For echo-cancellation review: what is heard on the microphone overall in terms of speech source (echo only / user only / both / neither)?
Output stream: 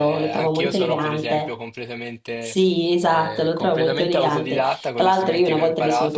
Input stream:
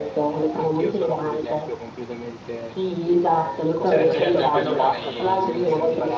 both